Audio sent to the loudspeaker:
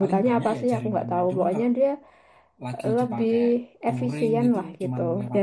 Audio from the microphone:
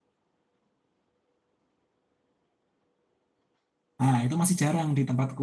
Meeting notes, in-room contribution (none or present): present